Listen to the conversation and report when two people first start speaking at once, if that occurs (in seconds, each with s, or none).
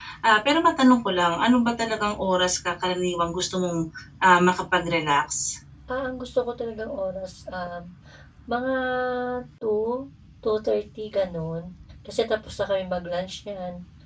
none